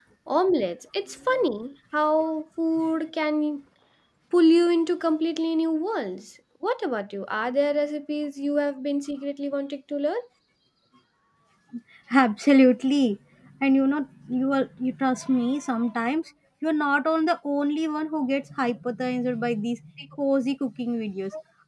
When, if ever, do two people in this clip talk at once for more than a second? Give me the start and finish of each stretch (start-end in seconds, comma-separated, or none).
none